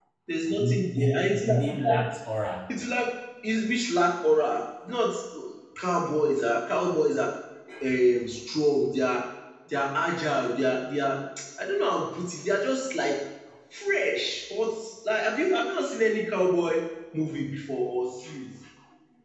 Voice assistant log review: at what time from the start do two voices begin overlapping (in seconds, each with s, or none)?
0.6 s